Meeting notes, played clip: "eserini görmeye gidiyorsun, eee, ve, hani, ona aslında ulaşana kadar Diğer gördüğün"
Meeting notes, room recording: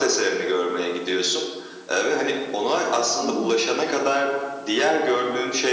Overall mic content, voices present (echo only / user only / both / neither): both